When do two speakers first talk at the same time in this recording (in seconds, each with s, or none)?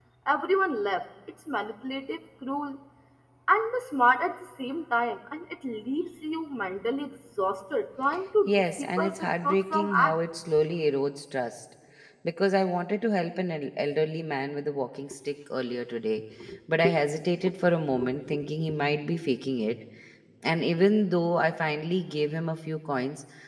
8.5 s